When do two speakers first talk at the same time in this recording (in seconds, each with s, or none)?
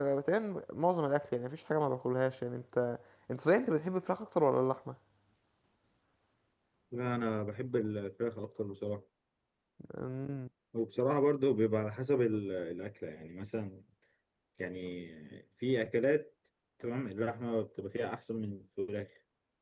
none